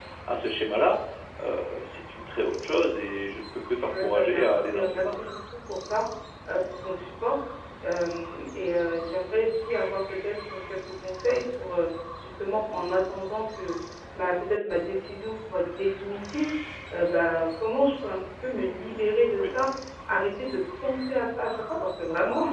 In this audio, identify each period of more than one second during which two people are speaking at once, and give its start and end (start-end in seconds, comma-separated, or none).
3.9-5.3